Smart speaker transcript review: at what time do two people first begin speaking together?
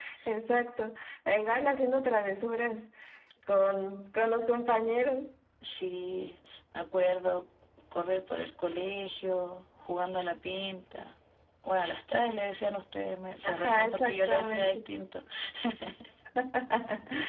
13 s

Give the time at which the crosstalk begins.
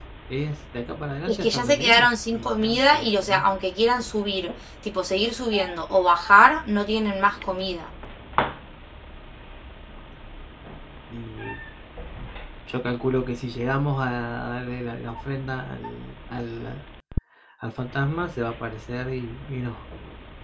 1 s

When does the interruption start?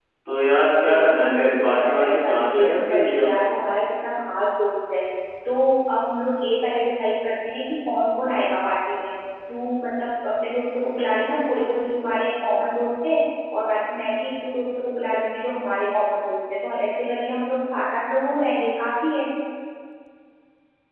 1 s

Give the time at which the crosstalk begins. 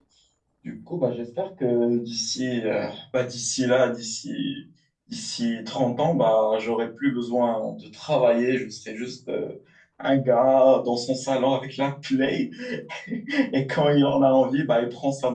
none

